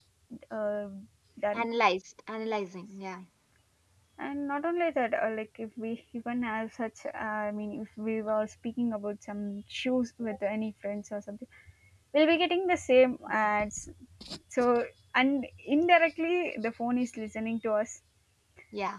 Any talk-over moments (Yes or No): No